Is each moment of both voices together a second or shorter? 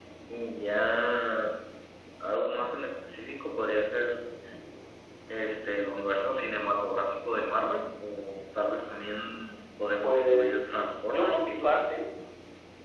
No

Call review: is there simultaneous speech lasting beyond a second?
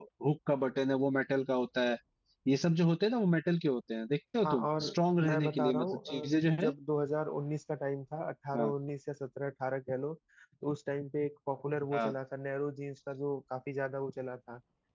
Yes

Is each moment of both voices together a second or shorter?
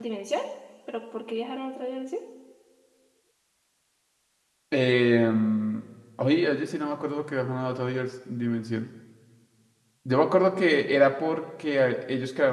Yes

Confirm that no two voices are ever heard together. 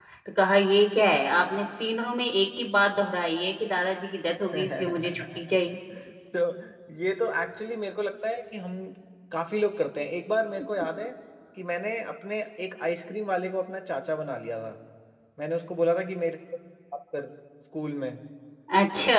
No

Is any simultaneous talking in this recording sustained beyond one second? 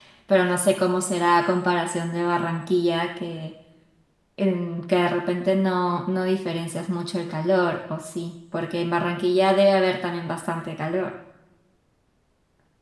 No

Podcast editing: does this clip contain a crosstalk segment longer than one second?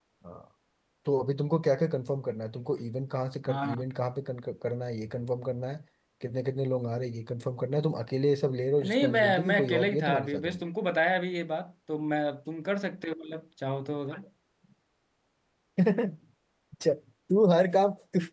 Yes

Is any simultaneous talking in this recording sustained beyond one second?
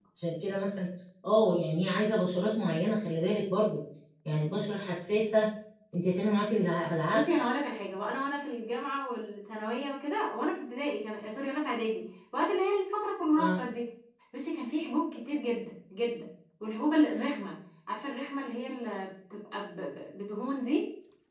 No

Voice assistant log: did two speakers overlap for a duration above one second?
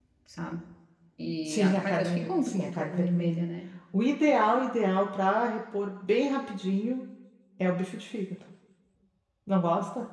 Yes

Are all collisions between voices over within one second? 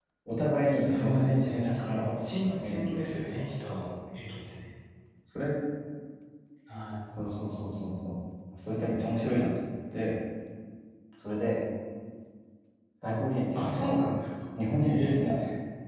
No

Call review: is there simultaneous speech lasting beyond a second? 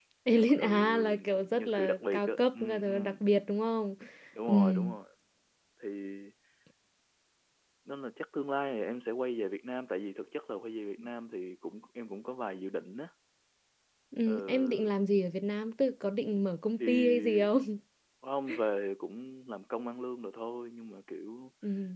Yes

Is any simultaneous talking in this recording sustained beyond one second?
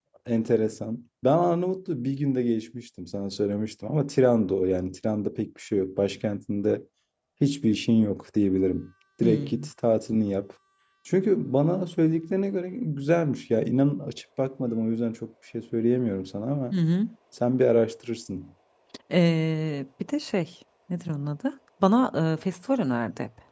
No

